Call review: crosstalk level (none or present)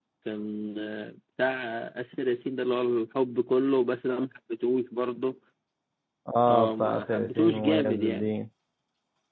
present